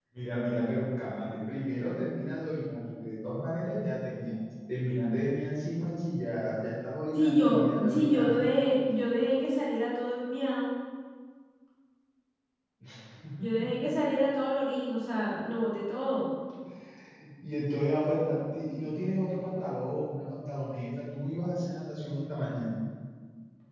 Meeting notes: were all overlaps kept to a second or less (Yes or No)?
No